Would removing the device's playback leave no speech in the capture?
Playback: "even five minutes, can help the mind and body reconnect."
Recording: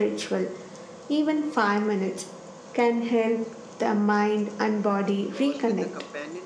No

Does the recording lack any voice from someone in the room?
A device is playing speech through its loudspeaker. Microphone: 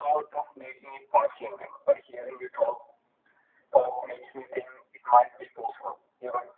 Yes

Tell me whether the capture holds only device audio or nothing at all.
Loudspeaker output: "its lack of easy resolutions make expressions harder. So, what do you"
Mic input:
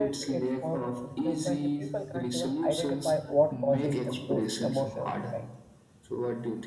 No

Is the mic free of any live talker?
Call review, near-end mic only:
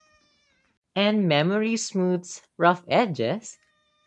No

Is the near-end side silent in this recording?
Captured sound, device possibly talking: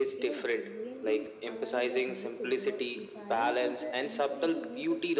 No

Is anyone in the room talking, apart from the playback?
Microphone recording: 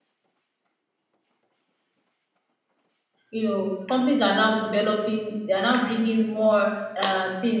Yes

